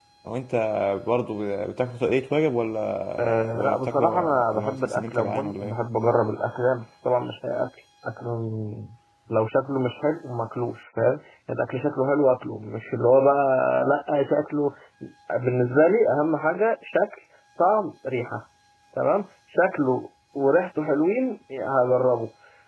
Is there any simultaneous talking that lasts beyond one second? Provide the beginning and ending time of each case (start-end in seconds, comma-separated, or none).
3.2-5.8